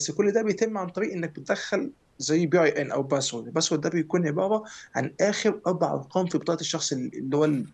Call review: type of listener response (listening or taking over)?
taking over